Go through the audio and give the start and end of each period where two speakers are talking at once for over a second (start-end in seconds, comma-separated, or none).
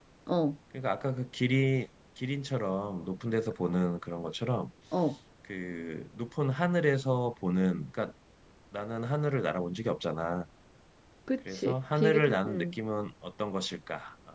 11.5-12.8